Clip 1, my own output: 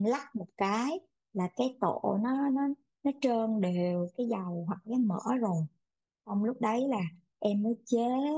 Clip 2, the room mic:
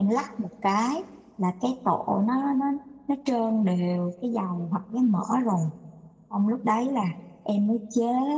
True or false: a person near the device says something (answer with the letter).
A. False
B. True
A